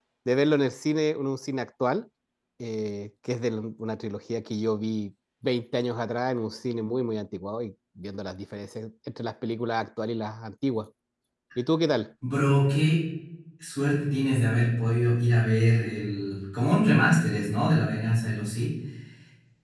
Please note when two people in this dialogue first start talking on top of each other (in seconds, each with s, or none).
none